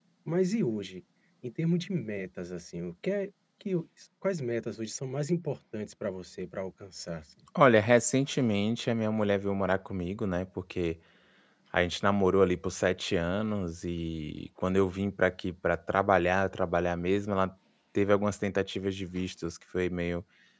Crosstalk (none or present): none